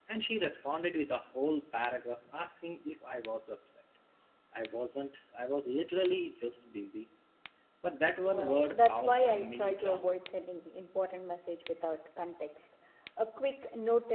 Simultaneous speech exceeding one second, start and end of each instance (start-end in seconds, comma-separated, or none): 8.2-10.2